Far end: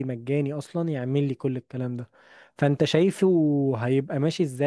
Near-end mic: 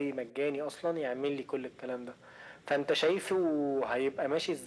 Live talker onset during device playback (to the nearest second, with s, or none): none